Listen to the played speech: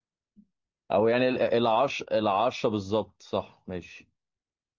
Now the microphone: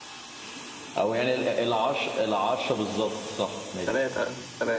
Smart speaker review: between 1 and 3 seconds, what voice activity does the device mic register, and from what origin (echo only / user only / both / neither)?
echo only